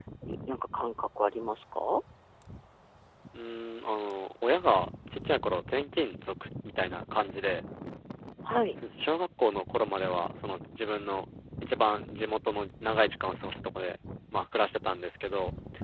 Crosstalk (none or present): none